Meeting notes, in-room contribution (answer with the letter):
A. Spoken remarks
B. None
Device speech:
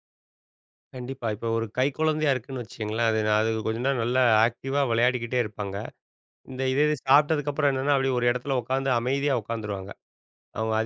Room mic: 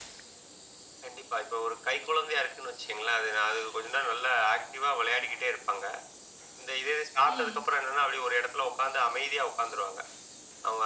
A